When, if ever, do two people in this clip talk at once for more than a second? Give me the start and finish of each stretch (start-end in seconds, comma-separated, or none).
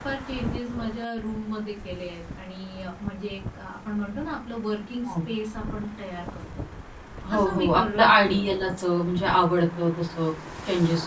7.3-8.5